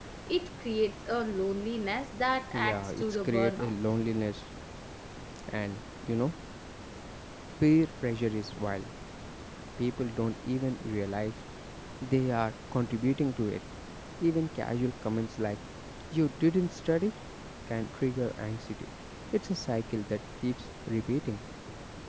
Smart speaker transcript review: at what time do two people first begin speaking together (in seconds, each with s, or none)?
2.5 s